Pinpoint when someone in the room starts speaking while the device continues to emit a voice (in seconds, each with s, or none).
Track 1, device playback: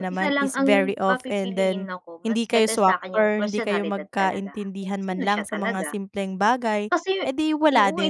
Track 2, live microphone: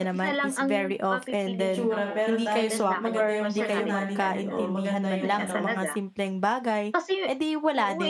1.6 s